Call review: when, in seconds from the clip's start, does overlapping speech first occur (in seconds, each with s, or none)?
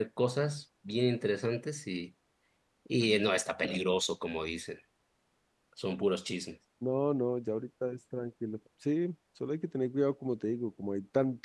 none